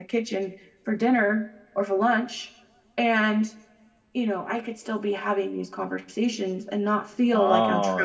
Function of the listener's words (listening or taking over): taking over